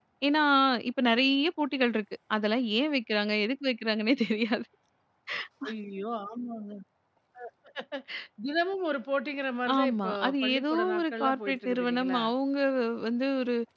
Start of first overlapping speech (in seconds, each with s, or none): 9.7 s